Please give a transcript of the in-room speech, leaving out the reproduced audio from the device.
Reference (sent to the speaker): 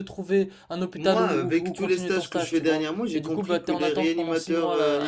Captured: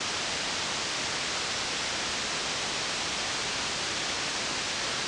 none

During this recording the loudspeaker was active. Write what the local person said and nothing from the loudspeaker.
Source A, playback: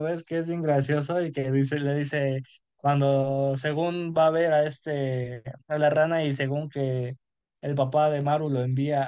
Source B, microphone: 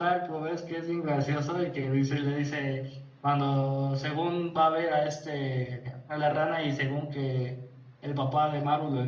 none

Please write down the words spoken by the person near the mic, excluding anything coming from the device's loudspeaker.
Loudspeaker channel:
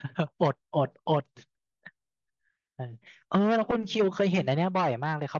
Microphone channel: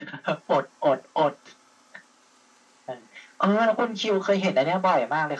none

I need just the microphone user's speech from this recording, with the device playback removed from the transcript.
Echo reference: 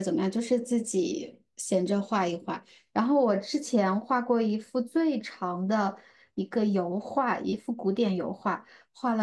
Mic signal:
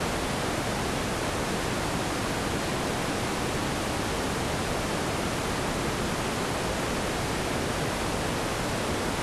none

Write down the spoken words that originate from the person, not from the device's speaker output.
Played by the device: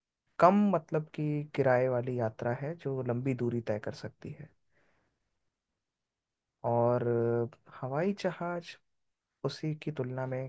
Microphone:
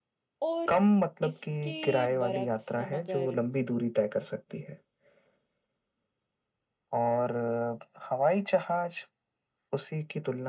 और इसके बरक्स हम अगर

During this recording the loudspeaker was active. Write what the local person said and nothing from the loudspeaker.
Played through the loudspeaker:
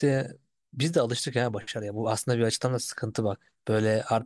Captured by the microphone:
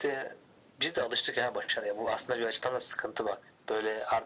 none

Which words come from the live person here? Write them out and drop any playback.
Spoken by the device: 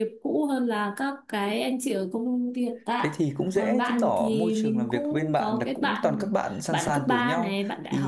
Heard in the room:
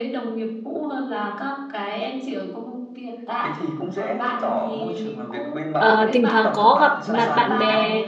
Ờ, thỉnh thoảng có gặp mặt bạn bè

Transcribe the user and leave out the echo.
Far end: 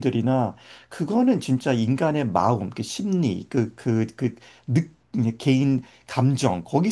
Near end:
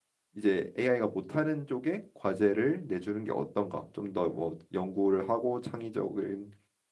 이제 AI가 못하는 쪽에 과제를 내주는 게 어떤가? 좀 더 뭐 연구를 하고 창의적인

